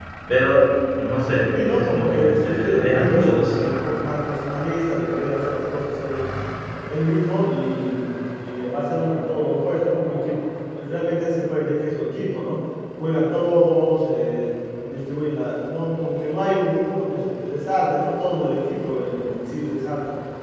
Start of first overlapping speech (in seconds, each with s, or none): 1.5 s